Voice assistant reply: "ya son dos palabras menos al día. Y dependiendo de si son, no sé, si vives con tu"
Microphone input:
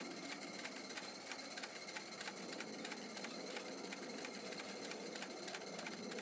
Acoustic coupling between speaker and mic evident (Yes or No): No